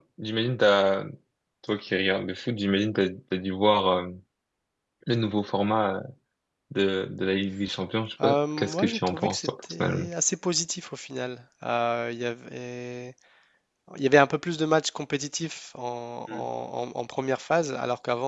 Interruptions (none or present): present